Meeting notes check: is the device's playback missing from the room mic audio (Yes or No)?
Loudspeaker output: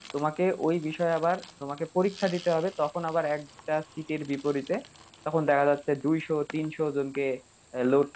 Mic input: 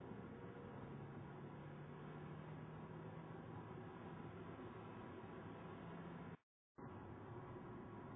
Yes